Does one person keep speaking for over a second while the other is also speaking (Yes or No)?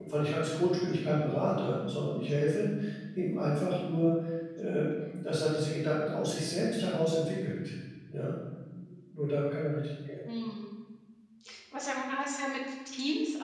No